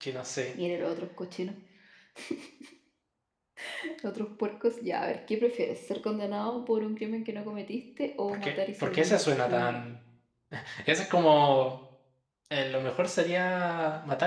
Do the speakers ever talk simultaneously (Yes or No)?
Yes